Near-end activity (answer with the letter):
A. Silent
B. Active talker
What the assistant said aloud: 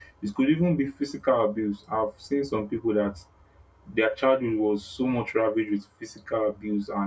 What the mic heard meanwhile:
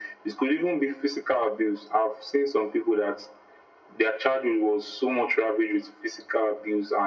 A